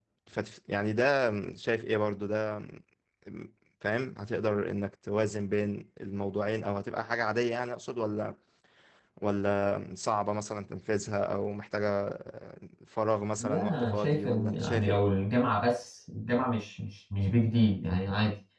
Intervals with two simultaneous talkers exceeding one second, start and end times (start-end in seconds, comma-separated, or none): 13.4-15.0